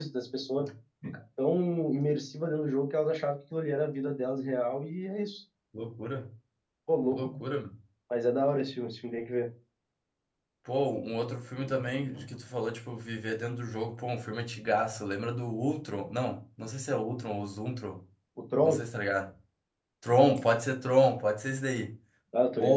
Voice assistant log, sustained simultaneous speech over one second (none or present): none